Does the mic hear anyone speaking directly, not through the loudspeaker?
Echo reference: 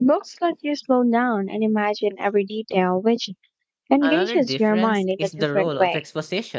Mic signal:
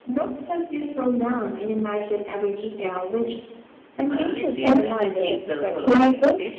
Yes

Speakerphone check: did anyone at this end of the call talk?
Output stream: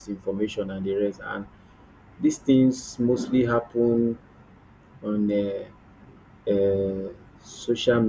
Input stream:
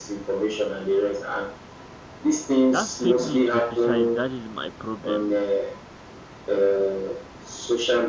Yes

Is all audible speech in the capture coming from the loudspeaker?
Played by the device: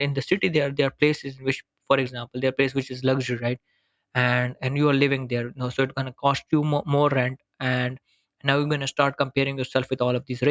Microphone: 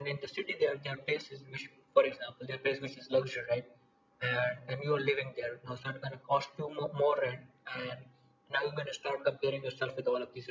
Yes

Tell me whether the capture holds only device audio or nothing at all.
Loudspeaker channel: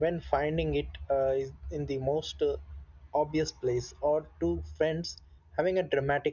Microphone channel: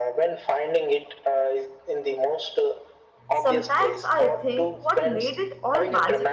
No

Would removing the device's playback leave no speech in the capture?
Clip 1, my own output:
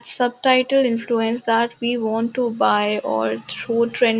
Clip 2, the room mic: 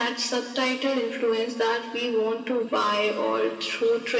Yes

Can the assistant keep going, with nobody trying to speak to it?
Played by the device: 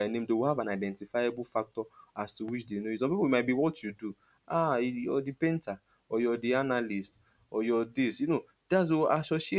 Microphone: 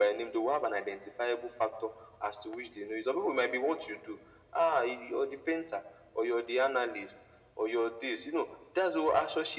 Yes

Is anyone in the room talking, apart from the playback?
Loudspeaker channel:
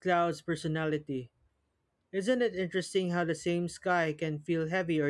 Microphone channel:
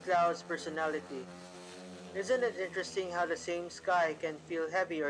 No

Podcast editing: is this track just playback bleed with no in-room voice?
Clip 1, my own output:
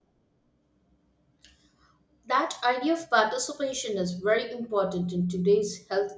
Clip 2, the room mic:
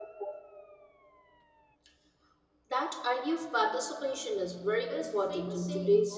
No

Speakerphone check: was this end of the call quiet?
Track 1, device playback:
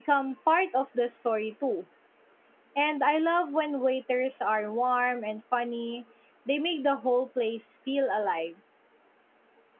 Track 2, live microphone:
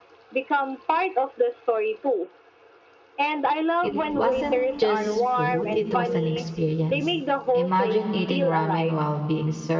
No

